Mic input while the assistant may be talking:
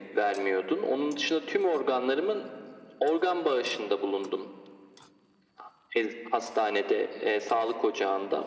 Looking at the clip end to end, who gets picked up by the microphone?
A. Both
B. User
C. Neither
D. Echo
D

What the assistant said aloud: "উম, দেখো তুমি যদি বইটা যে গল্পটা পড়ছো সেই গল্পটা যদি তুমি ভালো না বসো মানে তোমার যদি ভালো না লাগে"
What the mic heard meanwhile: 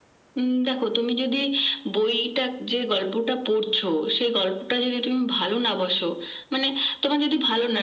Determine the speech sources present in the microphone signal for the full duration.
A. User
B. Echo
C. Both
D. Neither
B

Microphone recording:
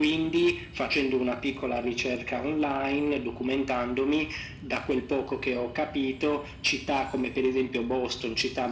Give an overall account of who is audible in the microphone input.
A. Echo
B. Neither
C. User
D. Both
A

